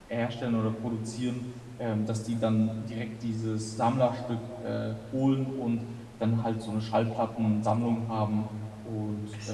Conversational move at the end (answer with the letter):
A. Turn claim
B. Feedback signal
A